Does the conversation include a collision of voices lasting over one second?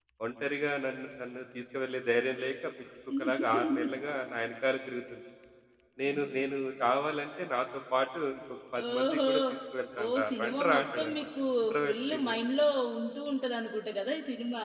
Yes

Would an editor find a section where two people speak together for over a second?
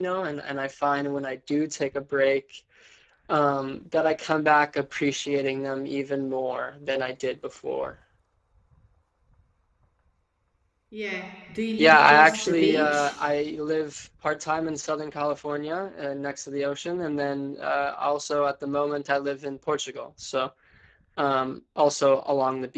Yes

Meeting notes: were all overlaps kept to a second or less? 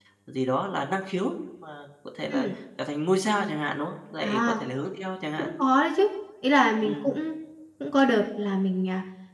Yes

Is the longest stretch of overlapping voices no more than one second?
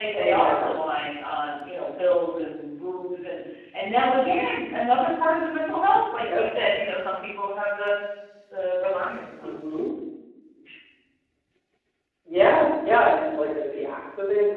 Yes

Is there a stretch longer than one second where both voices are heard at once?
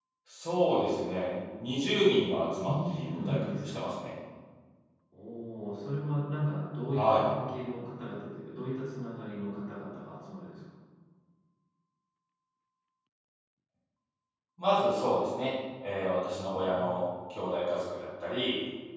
Yes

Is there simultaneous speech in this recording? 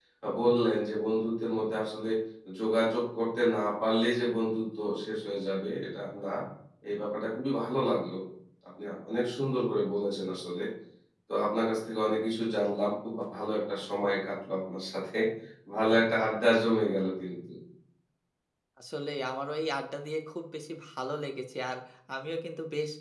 No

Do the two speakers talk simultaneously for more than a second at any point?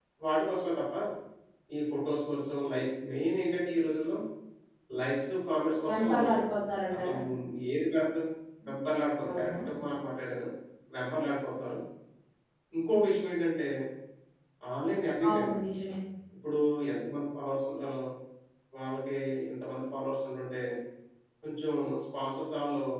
No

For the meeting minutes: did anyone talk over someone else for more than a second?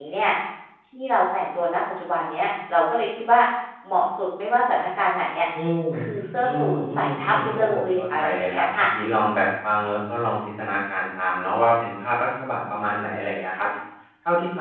Yes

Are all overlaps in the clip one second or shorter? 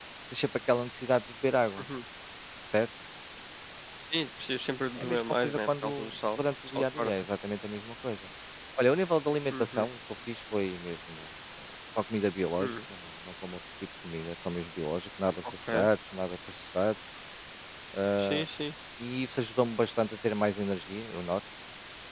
No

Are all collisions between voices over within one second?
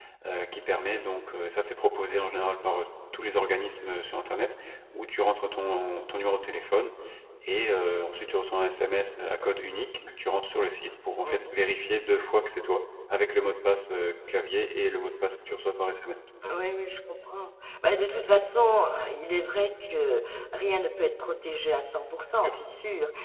Yes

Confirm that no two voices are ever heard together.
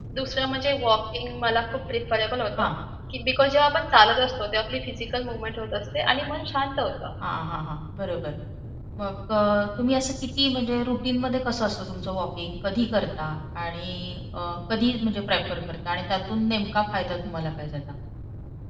Yes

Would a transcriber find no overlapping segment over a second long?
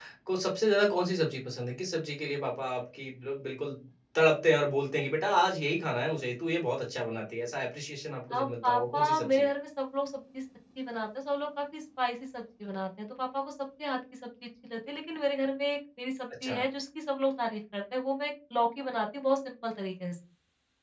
No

